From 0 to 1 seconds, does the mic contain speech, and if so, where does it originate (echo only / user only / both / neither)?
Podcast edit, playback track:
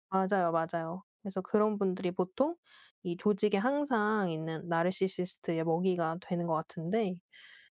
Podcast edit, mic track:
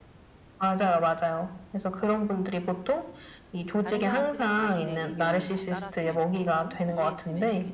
echo only